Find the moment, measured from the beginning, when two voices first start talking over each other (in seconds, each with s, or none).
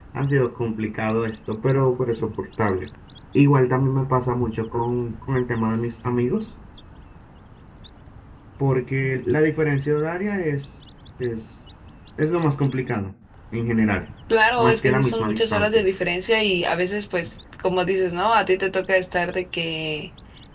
14.6 s